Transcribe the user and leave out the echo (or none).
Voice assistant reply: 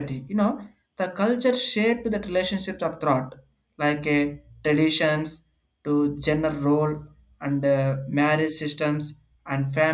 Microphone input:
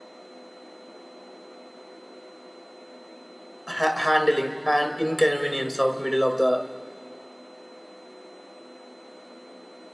ha- handling and inconvenience of middle of the